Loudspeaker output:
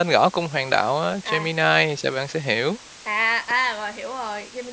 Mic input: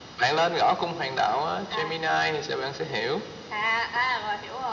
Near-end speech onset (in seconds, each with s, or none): none